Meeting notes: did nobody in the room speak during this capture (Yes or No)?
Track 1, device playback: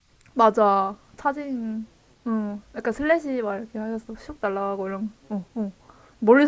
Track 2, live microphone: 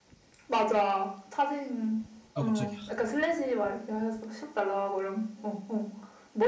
No